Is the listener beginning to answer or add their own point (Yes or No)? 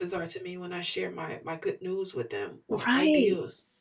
Yes